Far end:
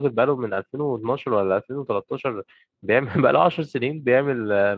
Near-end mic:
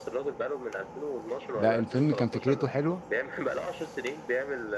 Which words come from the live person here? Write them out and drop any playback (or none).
لا الفيلم كان فكرته حلوة